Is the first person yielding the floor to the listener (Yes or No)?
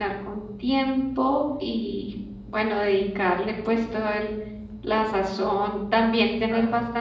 No